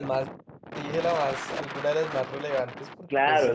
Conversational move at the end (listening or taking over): taking over